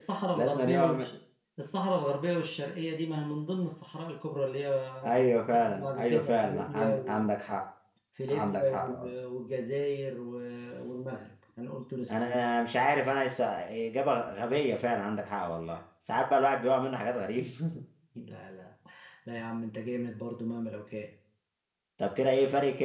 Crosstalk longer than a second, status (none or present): present